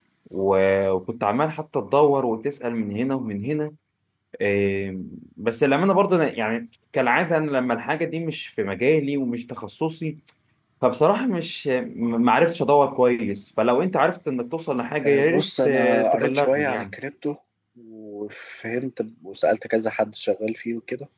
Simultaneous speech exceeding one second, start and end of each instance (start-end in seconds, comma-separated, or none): 15.0-16.9